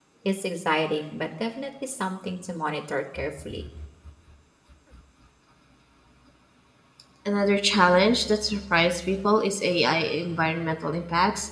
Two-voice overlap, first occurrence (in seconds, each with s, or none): none